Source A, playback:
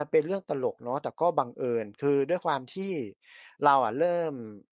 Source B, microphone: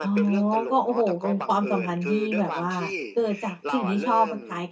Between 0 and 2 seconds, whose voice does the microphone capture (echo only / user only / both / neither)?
both